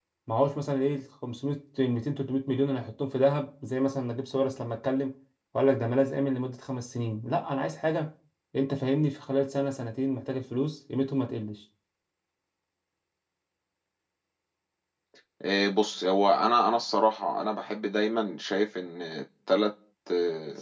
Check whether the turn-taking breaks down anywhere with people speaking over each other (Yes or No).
No